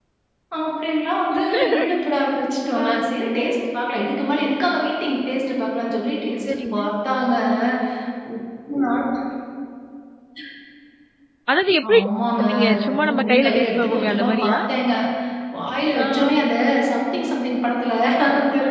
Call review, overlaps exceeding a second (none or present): present